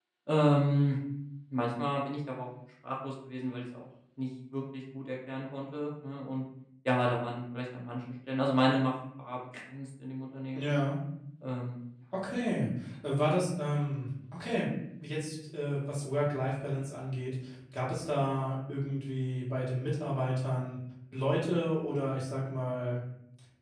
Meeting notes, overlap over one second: none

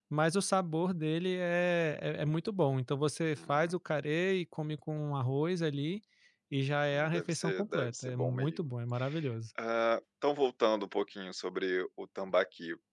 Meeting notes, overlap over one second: present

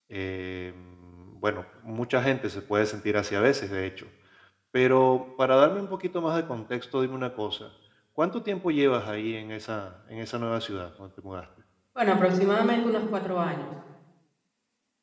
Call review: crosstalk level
none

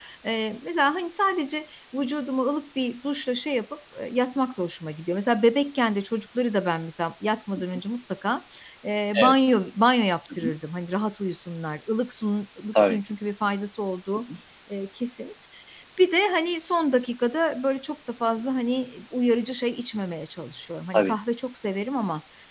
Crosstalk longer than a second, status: none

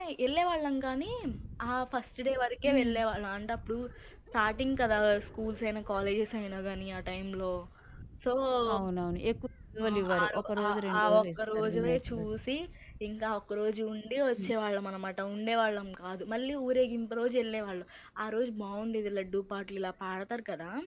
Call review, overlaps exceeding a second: present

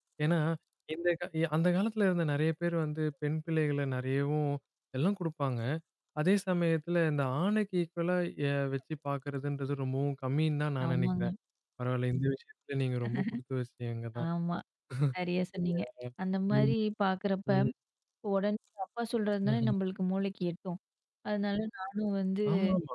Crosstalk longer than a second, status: none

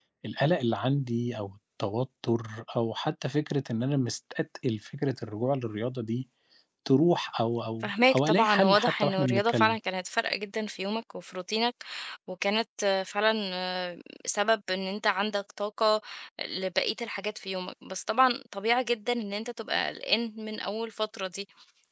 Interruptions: present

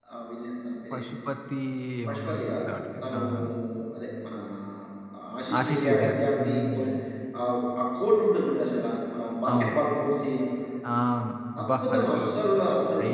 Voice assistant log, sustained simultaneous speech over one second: present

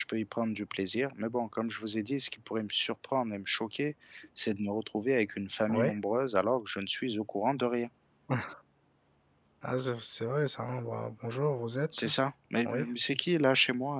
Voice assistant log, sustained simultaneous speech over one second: none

